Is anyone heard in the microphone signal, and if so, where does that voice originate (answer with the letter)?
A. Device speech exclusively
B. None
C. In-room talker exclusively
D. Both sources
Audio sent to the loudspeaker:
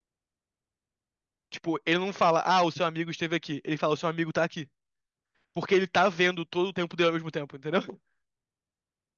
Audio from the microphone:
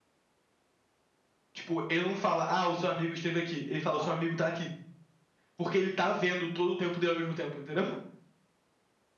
D